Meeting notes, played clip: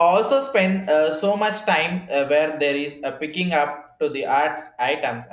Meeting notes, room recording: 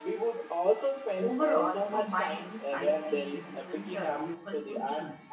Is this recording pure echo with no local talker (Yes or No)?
No